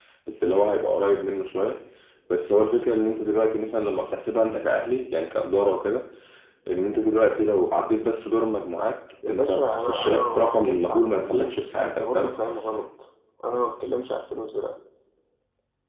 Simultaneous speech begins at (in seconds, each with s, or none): 9.2 s